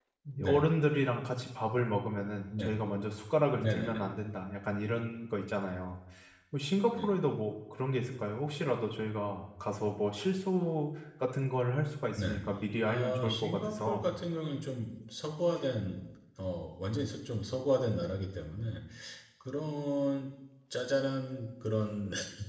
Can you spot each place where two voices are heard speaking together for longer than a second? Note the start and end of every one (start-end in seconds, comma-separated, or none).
12.8-14.1